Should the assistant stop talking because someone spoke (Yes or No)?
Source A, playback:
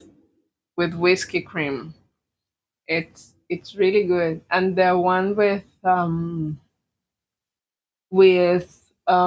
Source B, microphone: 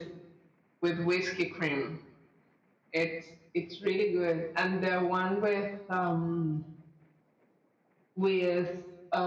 No